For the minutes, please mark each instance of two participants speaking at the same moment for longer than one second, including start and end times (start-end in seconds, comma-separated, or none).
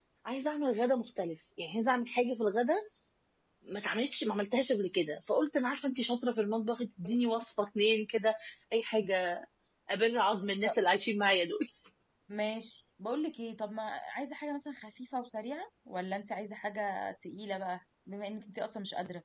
none